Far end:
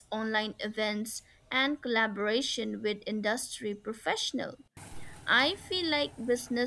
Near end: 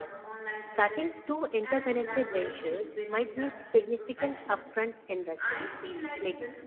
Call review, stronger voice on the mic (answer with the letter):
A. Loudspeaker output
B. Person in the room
B